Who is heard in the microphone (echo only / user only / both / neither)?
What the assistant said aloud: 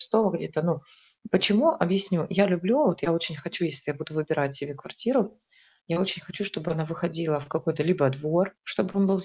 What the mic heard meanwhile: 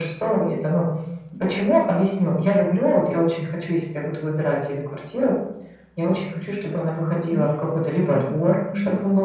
both